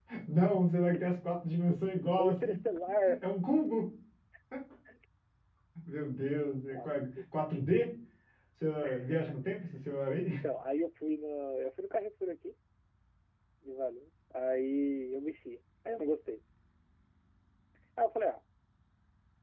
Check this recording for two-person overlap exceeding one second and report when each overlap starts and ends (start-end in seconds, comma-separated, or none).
none